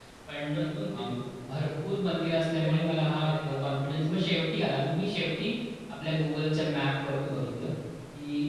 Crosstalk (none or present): present